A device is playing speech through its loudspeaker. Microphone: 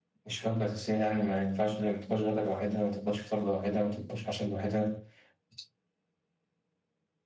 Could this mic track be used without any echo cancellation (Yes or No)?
Yes